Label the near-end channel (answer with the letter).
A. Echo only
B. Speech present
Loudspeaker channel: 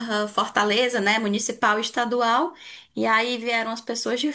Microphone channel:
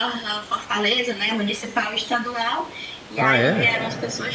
B